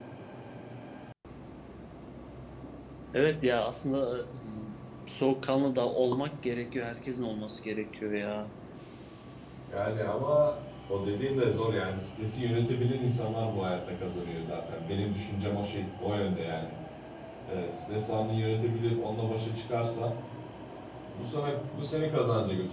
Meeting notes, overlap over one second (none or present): none